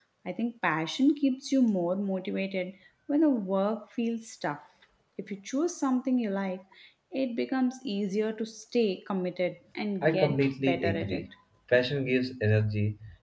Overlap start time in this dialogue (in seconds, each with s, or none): 10.0 s